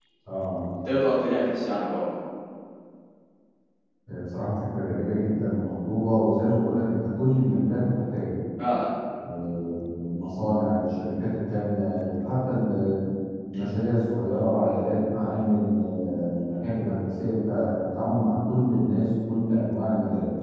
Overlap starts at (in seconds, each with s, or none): none